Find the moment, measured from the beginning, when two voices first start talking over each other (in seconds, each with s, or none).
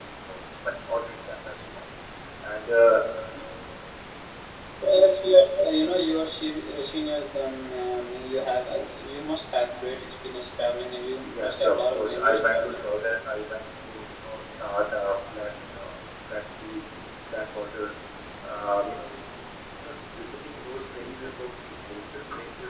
11.3 s